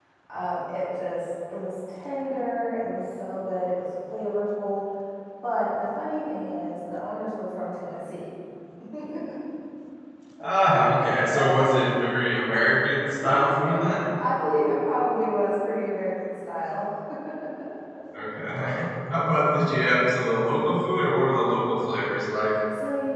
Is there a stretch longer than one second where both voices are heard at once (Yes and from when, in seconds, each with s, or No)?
No